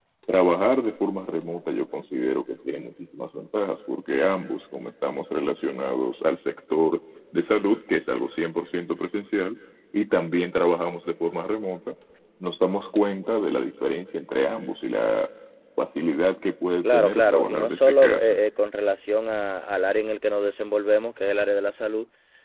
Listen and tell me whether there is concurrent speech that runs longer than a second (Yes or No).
Yes